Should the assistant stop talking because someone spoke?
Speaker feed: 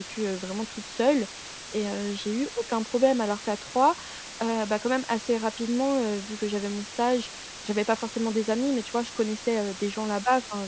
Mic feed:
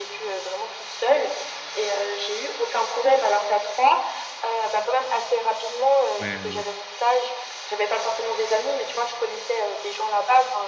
Yes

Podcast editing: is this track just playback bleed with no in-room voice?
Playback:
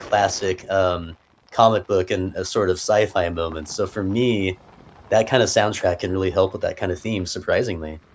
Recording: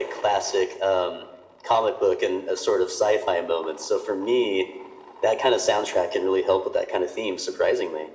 Yes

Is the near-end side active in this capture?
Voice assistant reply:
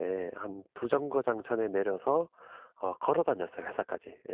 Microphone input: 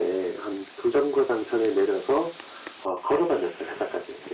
No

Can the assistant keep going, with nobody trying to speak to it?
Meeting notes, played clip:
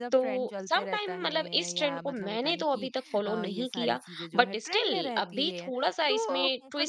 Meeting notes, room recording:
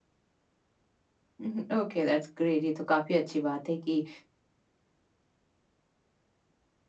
No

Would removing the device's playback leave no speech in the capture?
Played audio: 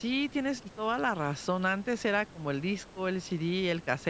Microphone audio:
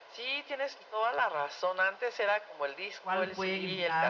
No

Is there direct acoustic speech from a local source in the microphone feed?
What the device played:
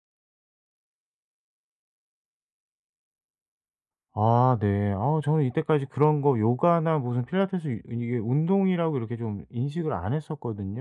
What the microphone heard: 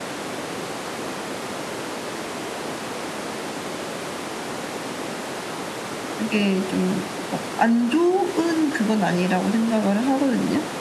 Yes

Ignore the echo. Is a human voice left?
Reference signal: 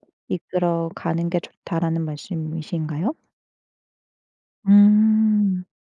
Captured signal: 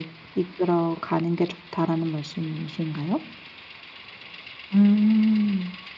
No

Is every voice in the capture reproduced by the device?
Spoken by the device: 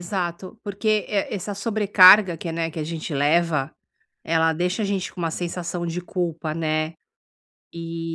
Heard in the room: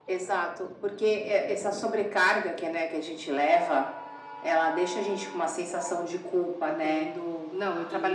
No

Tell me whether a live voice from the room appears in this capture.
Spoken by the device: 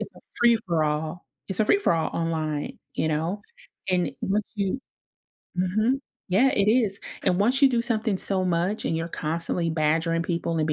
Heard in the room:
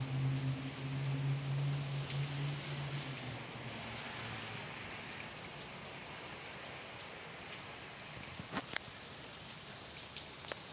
No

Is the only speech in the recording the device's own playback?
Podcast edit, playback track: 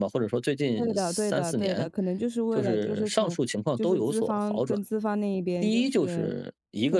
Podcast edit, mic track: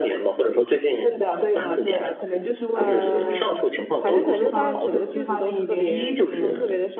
No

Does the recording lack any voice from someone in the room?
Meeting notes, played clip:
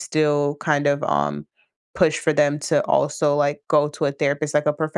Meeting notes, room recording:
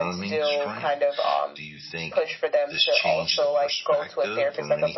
No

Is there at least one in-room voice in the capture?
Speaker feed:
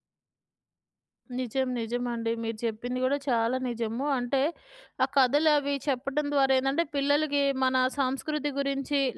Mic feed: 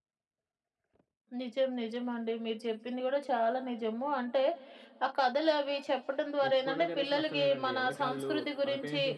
Yes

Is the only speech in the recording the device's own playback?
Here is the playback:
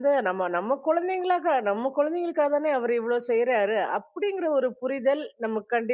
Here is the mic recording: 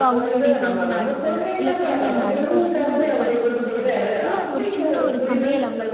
No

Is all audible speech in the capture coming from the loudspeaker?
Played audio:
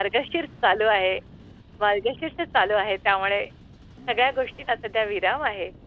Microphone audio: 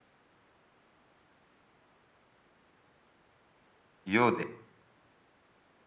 No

